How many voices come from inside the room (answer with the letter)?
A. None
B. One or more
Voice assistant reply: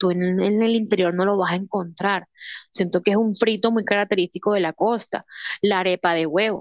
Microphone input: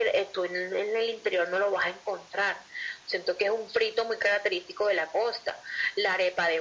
A